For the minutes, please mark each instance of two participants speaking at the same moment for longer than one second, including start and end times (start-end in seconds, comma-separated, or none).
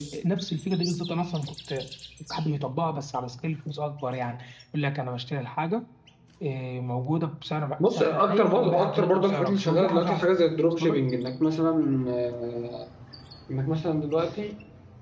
7.8-10.3